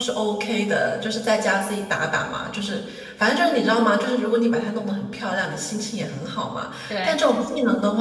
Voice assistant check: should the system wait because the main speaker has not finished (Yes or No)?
Yes